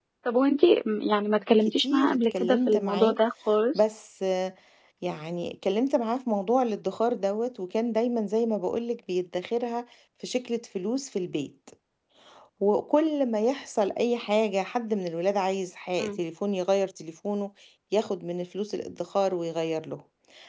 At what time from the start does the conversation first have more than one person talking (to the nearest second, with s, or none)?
2 s